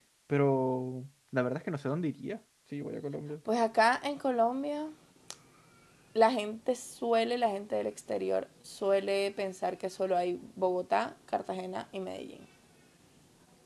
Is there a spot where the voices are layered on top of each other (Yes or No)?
No